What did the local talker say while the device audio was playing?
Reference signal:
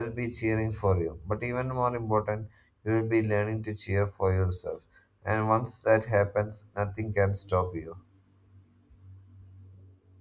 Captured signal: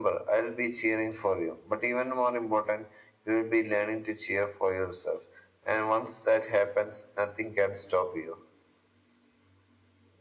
none

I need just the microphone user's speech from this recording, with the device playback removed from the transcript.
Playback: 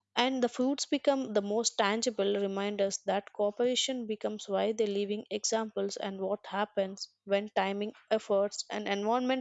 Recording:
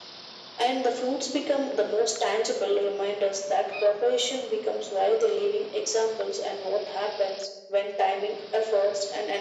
none

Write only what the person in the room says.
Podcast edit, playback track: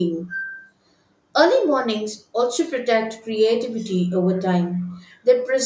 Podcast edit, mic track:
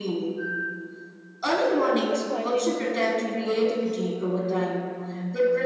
self respect quietly improves mental health

